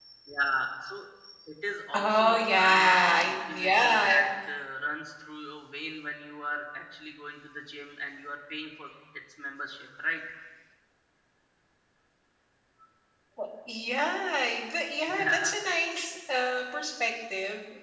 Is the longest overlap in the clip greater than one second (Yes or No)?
Yes